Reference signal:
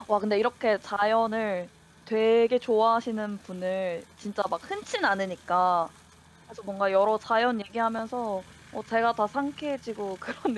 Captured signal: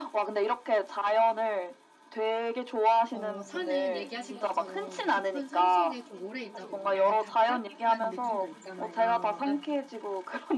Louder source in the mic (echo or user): echo